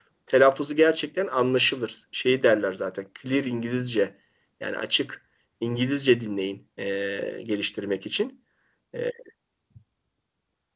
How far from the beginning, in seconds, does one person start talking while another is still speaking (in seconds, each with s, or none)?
none